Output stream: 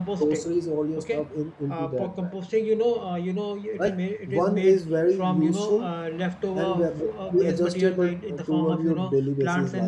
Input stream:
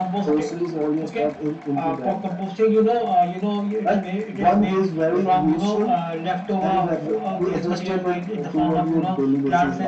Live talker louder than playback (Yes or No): No